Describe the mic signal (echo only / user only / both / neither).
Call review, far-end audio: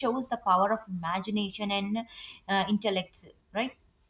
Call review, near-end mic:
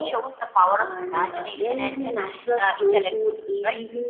both